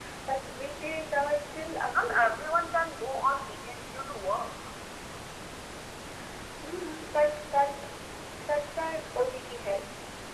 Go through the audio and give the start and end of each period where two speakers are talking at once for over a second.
none

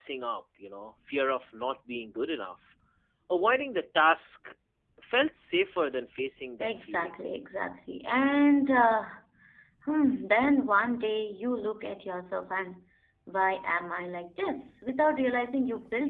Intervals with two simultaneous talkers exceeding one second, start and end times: none

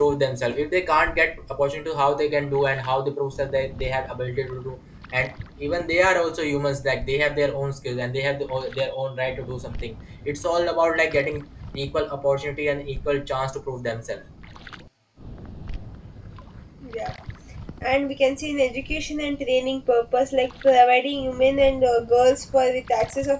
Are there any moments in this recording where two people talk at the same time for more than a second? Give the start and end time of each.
none

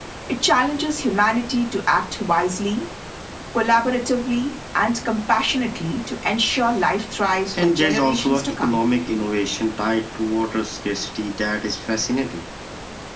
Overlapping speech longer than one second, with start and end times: 7.6-8.8

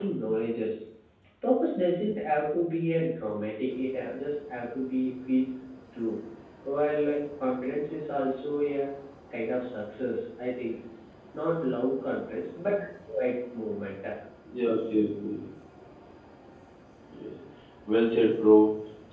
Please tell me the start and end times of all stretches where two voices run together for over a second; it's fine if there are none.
none

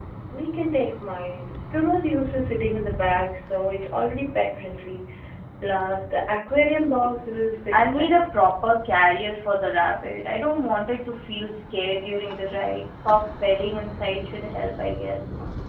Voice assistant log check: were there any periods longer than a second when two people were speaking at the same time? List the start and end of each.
none

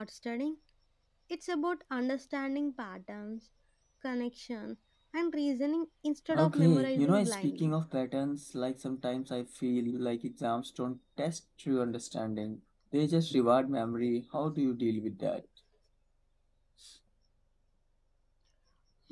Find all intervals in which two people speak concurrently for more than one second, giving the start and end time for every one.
6.3-7.7

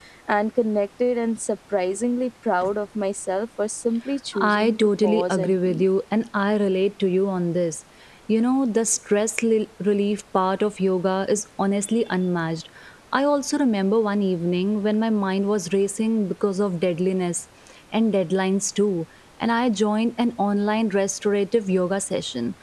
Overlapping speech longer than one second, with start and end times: 4.3-5.8

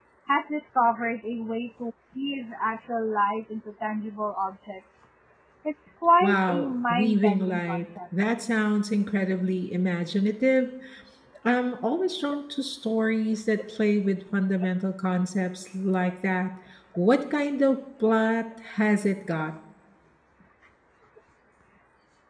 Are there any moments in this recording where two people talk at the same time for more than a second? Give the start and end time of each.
6.2-7.8

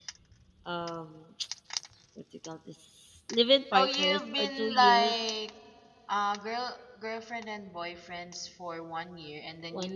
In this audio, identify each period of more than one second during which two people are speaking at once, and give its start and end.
3.7-5.1

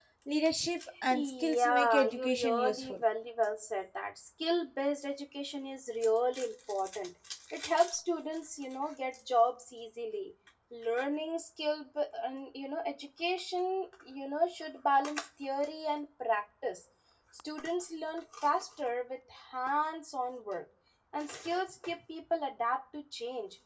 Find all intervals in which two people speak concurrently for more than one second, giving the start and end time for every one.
1.1-3.0

